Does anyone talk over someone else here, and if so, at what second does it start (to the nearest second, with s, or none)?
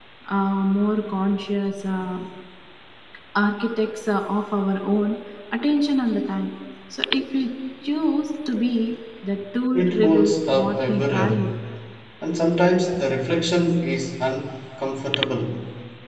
10 s